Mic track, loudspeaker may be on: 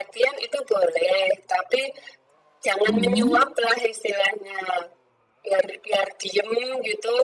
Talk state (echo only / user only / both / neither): both